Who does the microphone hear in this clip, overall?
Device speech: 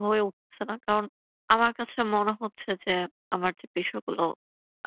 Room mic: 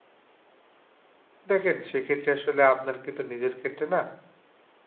user only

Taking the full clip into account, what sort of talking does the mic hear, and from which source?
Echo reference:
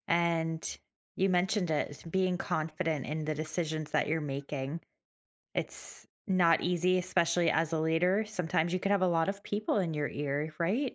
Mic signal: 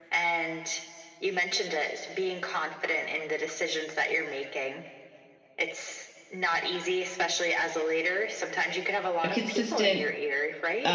both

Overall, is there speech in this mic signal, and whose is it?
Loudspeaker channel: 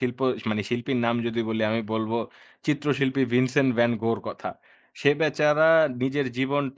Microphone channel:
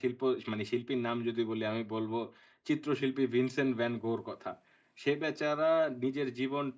echo only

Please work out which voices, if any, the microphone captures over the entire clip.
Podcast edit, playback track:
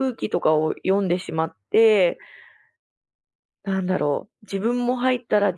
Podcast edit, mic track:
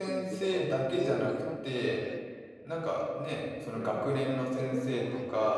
both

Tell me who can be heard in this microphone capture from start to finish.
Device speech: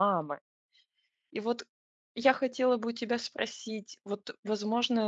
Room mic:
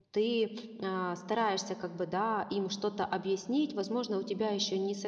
user only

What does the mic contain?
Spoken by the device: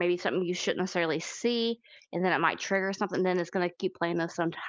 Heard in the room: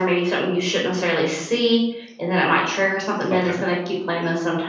both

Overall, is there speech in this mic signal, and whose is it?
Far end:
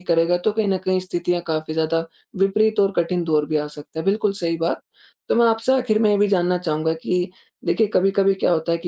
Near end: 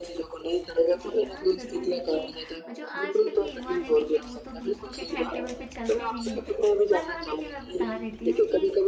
both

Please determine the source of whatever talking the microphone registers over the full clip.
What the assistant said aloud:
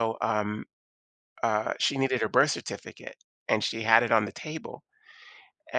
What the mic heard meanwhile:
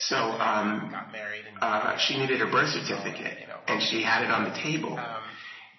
both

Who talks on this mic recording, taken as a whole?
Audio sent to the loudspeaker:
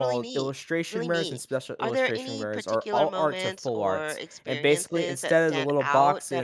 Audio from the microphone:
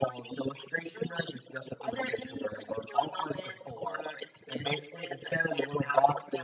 echo only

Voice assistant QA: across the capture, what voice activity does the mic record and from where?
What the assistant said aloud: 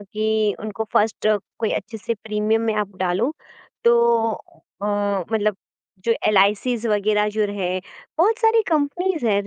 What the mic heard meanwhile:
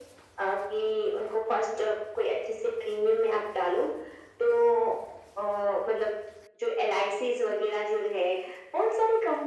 echo only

